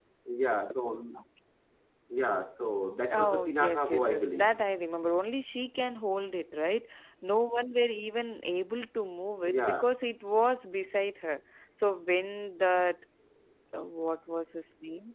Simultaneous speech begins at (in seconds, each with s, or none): 3.1 s